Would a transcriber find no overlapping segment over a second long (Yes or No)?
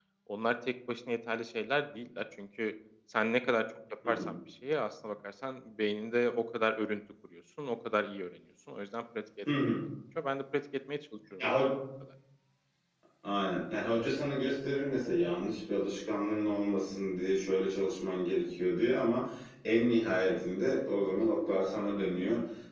Yes